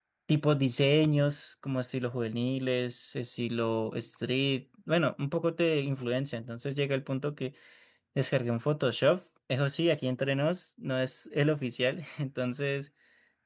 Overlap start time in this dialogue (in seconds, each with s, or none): none